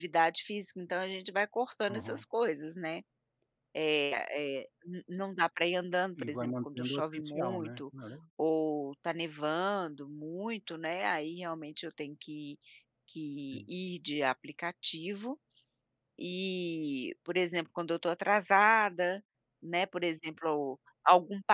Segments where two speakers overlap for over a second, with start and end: 6.2-7.8

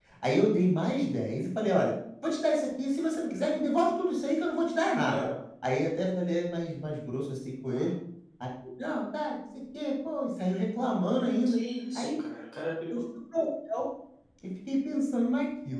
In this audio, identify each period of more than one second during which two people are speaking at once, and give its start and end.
none

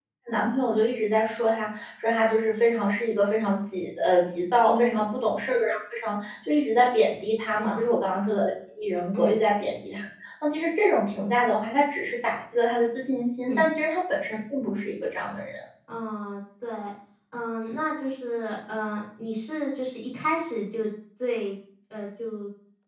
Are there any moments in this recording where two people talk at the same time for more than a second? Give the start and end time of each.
none

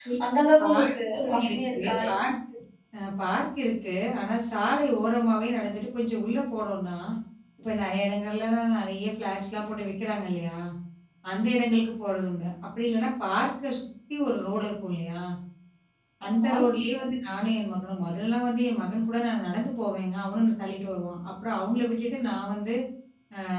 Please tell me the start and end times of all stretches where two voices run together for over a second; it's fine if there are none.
0.6-1.9

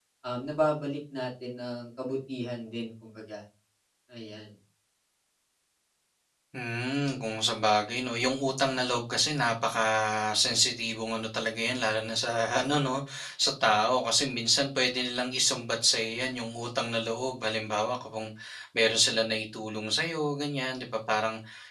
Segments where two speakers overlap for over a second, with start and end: none

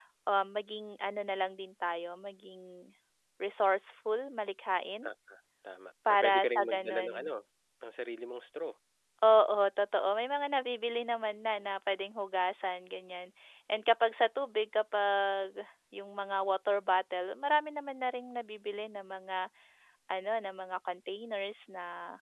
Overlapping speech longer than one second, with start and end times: 6.1-7.3

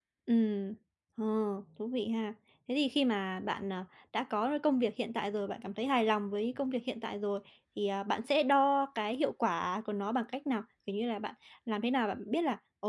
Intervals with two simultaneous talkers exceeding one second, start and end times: none

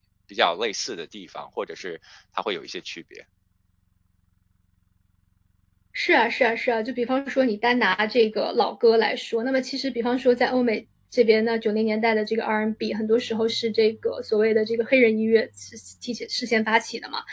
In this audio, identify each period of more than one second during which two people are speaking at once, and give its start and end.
none

